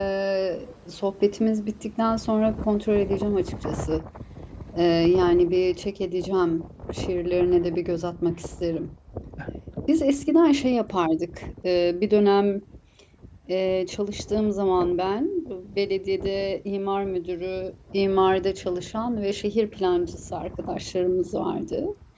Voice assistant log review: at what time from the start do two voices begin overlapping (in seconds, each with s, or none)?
none